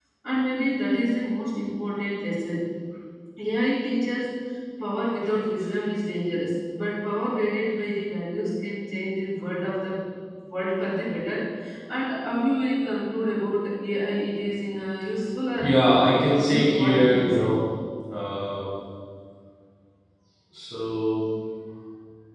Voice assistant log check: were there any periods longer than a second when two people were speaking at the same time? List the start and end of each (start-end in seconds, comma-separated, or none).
15.6-17.5